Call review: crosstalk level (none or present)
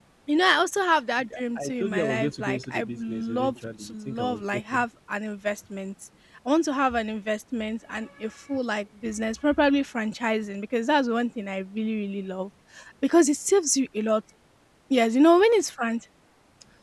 present